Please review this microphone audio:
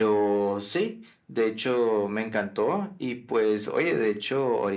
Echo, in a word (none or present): present